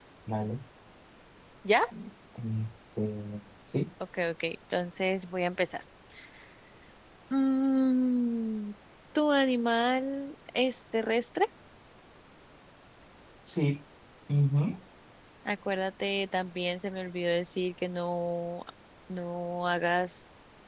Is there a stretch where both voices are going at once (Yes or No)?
No